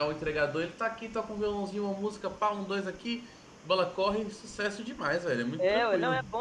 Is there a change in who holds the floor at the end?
Yes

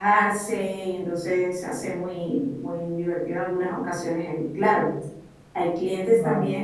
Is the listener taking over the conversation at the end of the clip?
No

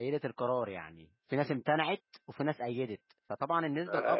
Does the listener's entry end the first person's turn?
Yes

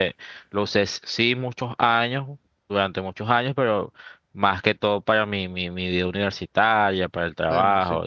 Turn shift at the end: Yes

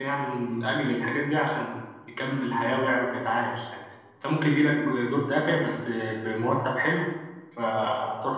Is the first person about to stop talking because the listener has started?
No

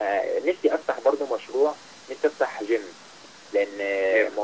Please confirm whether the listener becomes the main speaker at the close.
No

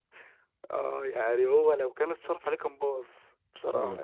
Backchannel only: No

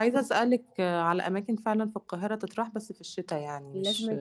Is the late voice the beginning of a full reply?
Yes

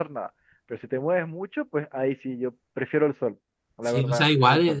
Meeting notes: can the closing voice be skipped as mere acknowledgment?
No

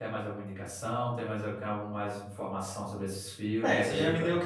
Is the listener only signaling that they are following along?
No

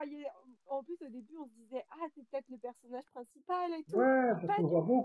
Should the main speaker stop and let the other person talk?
Yes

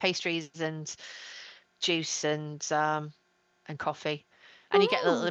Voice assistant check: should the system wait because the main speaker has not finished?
Yes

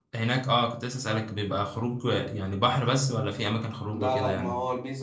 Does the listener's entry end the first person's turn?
Yes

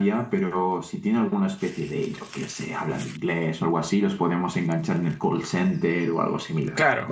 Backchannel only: No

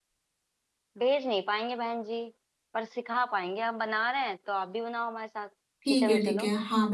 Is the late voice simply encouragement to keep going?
No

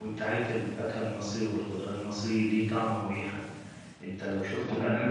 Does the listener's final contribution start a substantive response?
No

